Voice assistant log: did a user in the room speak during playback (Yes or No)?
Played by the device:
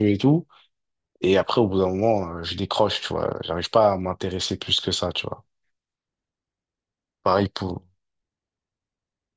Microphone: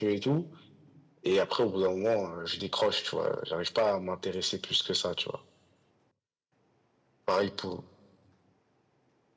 No